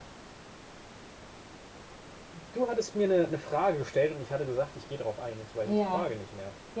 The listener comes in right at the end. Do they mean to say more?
Yes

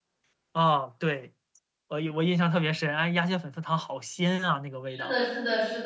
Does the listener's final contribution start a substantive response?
Yes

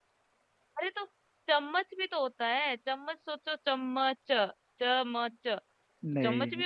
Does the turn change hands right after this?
No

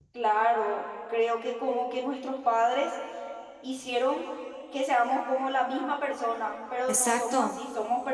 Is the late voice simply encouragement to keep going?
Yes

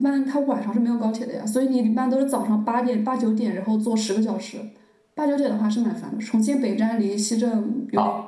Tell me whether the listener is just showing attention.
No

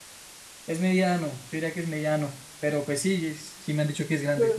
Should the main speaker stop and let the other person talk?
No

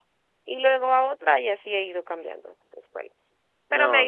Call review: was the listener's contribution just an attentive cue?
No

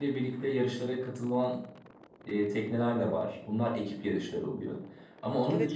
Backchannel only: Yes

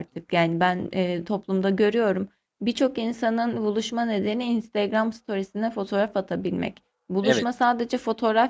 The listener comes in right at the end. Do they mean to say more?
No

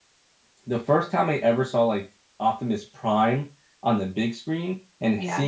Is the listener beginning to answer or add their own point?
No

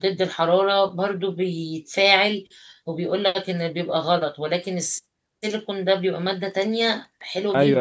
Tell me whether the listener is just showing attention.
No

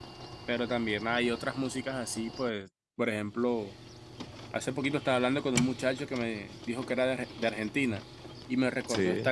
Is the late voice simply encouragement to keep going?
Yes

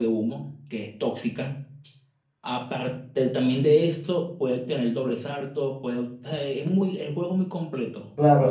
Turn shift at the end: Yes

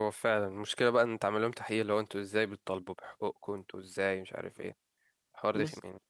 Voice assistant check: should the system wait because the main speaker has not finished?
No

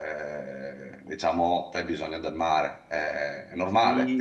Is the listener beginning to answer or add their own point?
Yes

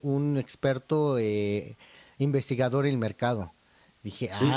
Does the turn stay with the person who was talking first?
No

